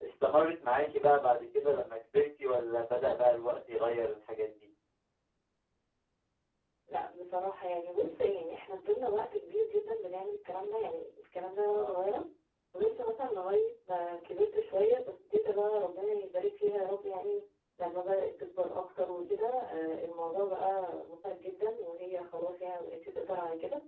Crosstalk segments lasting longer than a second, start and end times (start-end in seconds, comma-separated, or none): none